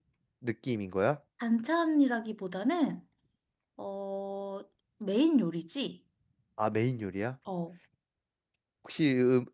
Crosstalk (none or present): none